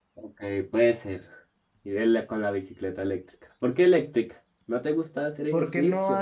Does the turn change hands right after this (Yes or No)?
Yes